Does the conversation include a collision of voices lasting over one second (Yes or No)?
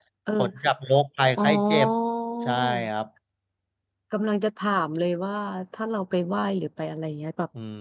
No